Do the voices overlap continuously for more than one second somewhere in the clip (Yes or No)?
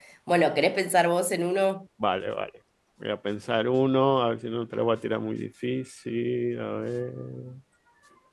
No